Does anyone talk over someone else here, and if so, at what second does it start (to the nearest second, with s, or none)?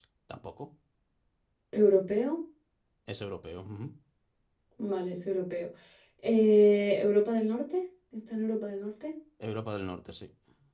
none